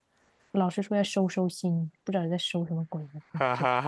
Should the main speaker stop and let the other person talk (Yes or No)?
Yes